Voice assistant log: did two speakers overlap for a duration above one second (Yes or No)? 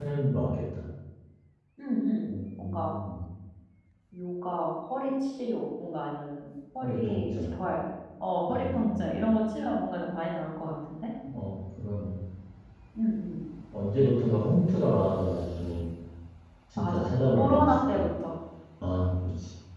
Yes